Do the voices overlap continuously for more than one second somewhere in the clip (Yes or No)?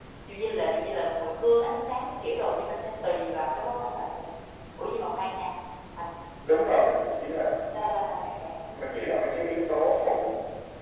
No